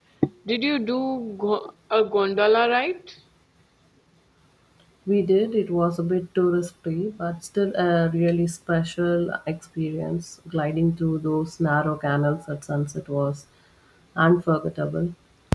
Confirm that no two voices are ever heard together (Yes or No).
Yes